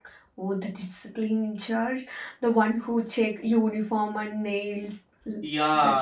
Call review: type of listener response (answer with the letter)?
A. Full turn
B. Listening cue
A